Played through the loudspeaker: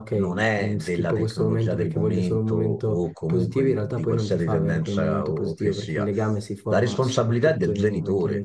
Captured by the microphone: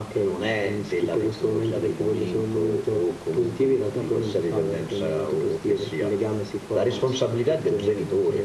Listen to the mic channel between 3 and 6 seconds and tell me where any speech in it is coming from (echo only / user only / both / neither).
echo only